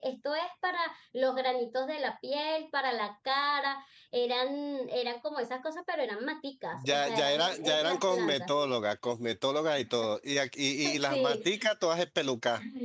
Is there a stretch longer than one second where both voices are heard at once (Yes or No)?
Yes